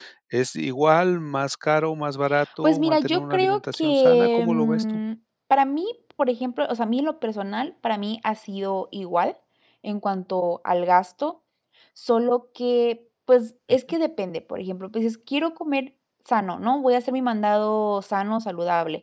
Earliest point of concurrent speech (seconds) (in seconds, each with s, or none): 2.6 s